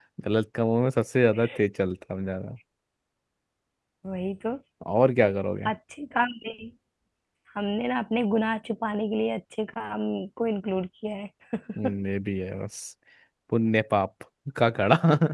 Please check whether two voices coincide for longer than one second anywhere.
No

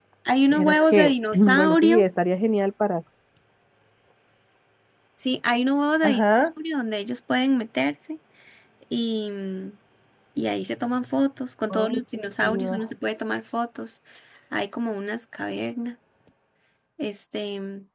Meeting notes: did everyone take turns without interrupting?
No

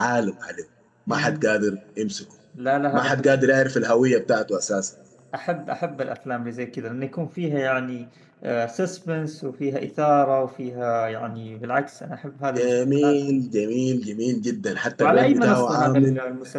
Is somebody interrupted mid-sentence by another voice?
Yes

